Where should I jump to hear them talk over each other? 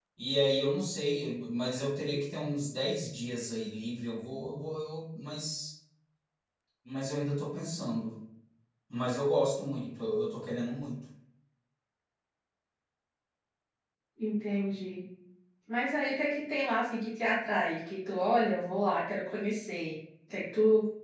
none

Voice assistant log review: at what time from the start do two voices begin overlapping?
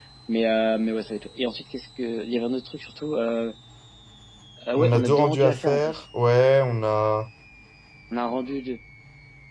4.8 s

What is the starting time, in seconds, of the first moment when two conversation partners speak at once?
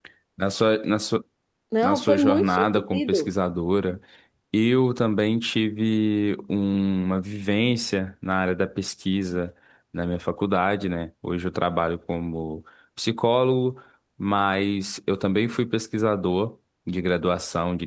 1.8 s

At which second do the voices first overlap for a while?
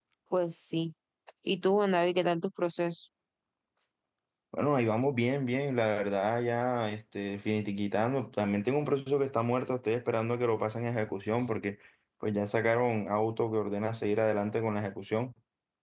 none

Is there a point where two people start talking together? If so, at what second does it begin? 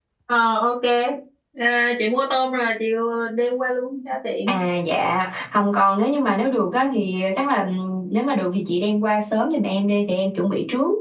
none

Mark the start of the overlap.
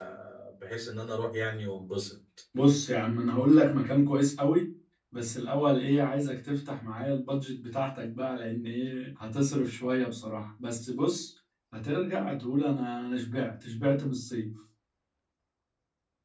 none

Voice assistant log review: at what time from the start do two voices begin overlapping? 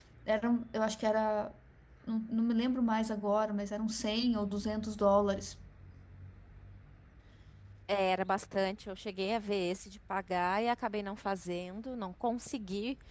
none

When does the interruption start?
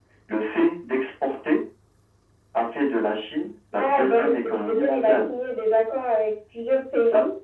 3.7 s

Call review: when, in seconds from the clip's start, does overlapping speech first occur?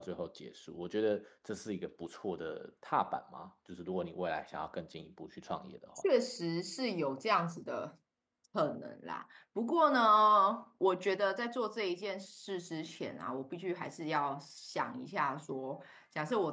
none

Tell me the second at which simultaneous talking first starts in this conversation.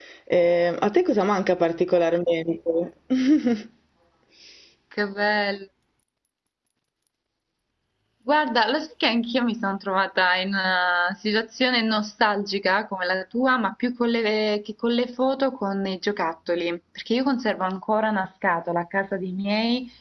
none

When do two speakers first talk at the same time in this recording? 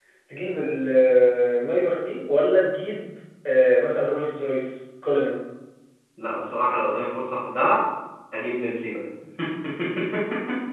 none

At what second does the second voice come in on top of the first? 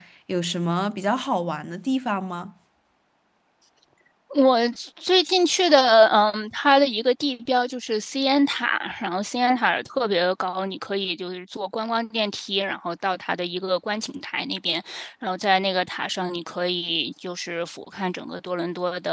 none

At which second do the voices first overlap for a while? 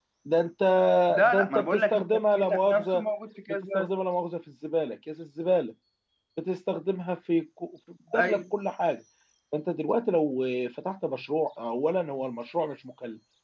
1.2 s

